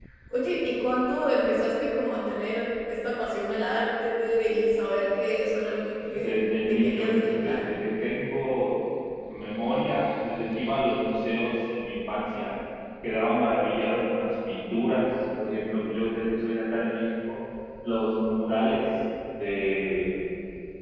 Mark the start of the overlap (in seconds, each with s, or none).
6.1 s